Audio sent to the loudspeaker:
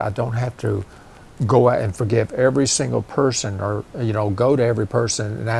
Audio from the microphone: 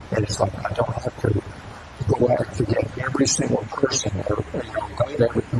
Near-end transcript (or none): none